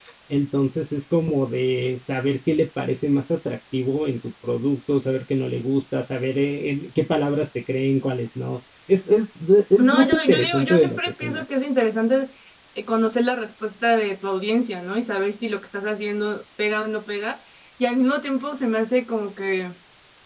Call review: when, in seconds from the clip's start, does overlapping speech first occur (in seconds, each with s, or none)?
9.8 s